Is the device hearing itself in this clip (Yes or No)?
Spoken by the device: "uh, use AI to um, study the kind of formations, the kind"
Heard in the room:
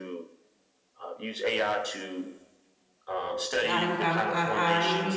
Yes